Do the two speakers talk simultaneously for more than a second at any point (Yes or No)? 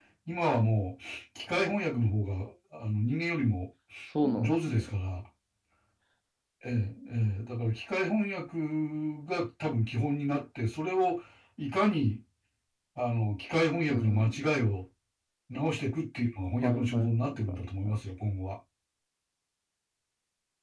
Yes